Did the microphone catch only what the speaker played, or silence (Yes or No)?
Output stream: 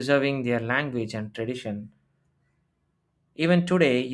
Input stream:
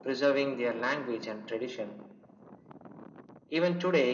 Yes